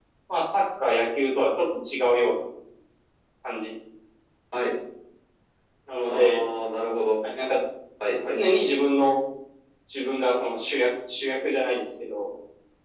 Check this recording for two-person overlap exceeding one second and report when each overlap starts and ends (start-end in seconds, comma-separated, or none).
none